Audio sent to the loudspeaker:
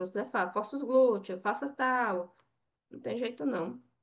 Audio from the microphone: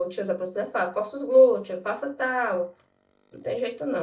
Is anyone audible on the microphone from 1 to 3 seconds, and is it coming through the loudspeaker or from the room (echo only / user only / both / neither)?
echo only